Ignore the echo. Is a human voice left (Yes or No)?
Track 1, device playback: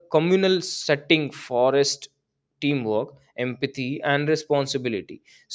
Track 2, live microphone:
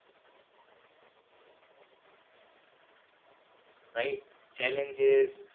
Yes